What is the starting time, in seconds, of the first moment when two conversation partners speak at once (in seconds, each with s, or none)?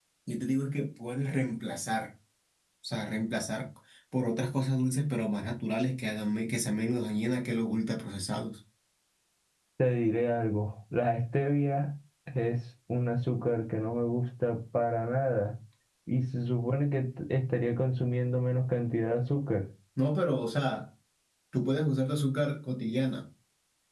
none